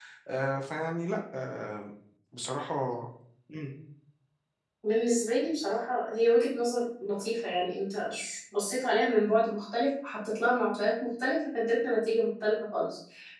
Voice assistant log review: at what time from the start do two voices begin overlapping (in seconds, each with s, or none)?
none